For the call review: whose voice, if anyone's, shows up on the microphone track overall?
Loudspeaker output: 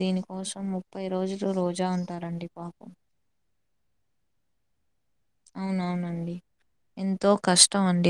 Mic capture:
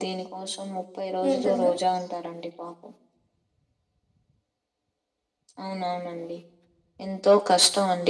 both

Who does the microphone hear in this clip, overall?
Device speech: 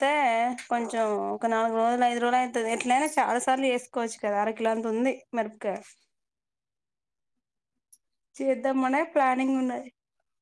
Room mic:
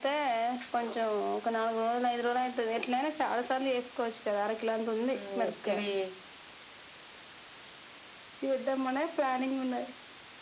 both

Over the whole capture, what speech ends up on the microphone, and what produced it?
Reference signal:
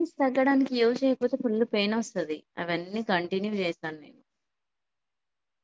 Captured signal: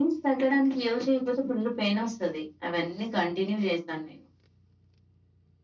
echo only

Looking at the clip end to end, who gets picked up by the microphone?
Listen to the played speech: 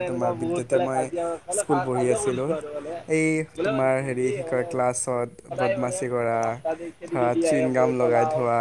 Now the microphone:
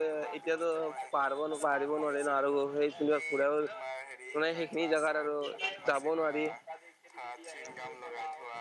both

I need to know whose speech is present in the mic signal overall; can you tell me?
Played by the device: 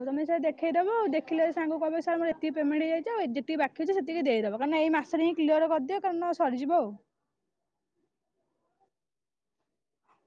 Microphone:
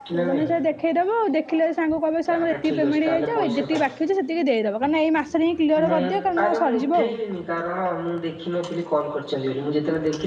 both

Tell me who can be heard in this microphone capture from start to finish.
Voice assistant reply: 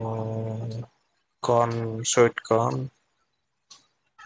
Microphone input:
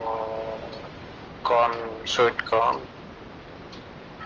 echo only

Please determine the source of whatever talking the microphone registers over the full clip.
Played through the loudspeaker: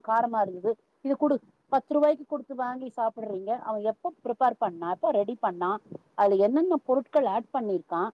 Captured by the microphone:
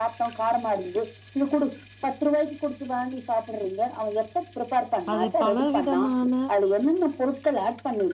both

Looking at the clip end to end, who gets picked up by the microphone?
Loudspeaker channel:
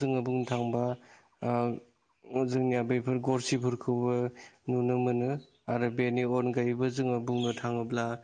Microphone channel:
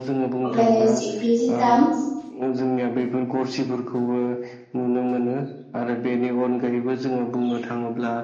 both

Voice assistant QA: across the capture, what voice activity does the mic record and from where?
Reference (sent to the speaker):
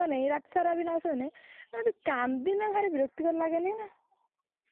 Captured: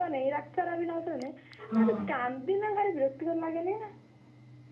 both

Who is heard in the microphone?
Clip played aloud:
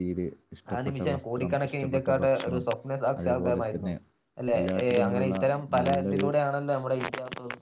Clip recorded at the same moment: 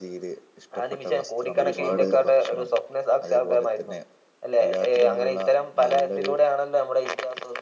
both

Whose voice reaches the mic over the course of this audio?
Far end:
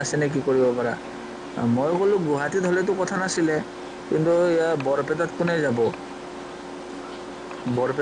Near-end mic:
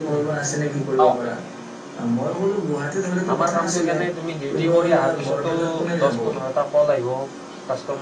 both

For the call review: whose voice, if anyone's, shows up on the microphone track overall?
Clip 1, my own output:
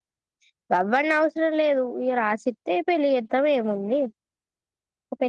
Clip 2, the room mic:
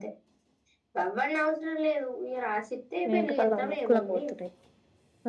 both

